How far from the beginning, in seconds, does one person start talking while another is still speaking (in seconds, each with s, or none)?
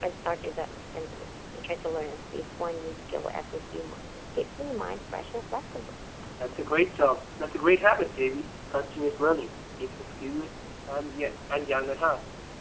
none